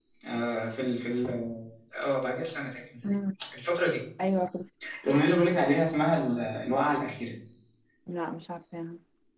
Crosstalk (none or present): none